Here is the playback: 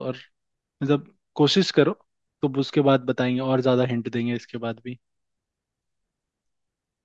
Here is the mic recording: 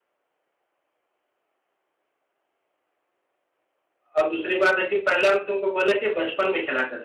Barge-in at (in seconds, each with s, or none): 4.2 s